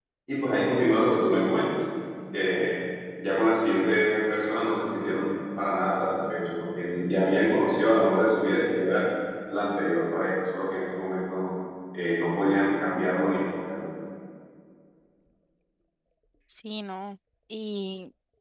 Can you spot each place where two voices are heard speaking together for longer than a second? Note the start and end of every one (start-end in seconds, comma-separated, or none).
none